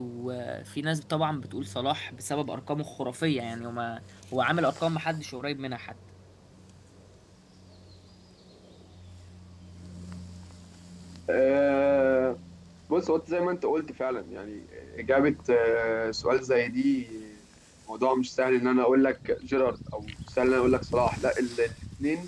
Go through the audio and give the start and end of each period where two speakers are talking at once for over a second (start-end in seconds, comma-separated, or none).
none